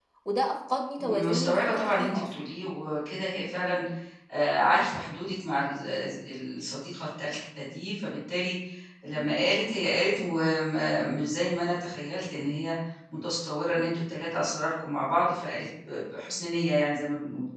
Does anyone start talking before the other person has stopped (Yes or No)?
Yes